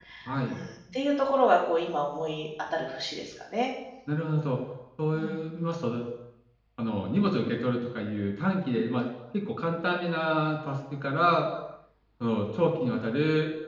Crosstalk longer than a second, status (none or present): none